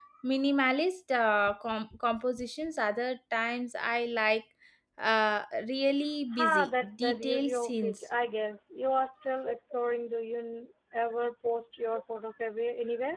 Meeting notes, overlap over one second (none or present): present